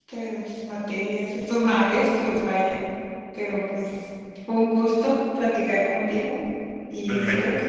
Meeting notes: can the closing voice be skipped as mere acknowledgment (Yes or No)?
Yes